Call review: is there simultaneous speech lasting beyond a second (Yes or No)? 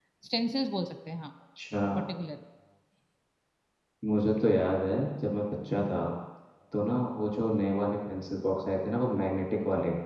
No